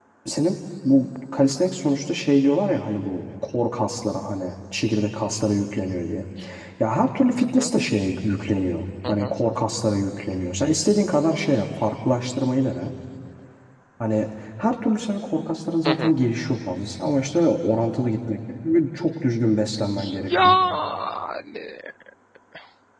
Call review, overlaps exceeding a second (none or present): none